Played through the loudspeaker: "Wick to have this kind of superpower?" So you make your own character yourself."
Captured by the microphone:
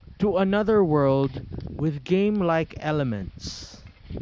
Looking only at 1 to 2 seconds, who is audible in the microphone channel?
user only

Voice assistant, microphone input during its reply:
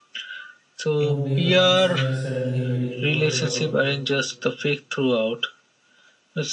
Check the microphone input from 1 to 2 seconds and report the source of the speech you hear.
both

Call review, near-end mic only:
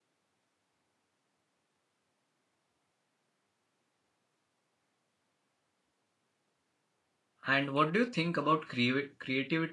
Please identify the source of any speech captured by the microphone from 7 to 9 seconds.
user only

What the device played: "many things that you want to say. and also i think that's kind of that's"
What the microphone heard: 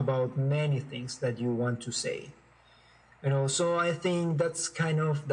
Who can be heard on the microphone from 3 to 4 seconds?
echo only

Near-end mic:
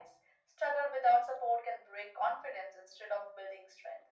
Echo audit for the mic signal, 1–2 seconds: echo only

